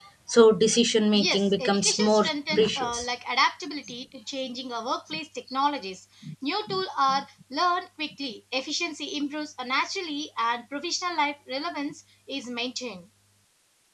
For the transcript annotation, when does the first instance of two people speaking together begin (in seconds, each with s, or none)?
1.1 s